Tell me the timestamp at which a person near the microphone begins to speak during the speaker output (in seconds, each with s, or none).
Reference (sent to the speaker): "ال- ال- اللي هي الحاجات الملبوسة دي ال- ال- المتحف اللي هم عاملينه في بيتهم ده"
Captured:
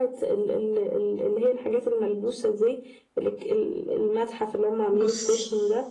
4.9 s